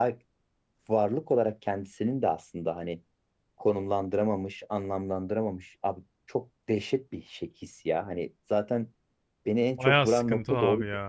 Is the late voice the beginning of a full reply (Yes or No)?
Yes